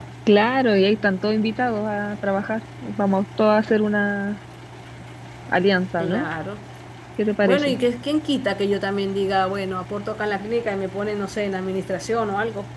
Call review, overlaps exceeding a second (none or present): none